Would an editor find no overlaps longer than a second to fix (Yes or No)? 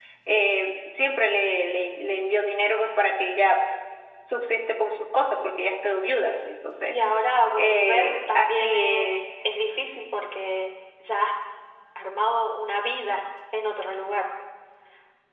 No